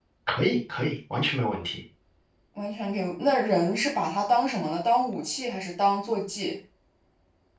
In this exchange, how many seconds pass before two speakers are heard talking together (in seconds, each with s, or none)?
none